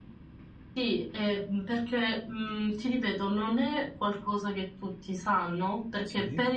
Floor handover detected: No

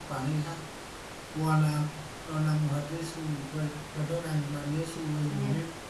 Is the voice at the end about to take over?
No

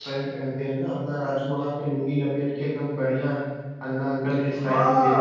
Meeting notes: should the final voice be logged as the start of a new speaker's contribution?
Yes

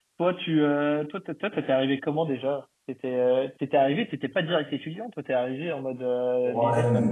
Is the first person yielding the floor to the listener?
Yes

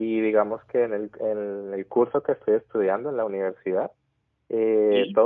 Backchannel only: Yes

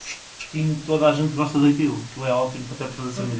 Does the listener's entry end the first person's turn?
Yes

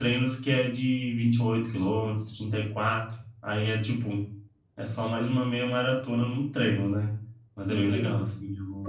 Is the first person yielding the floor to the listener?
Yes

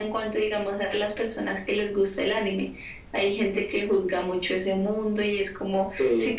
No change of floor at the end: Yes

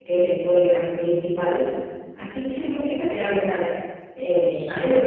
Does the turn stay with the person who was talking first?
No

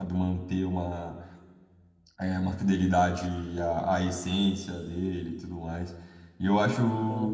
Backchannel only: Yes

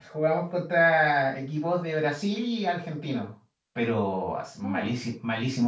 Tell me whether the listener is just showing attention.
Yes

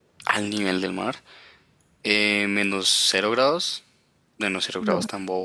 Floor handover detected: No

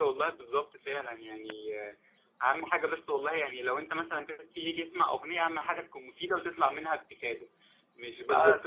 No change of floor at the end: Yes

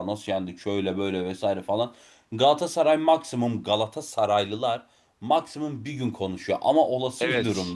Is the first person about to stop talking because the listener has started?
No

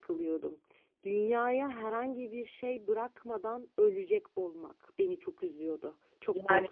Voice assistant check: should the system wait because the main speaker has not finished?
No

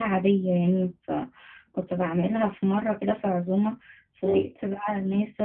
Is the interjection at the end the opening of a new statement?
No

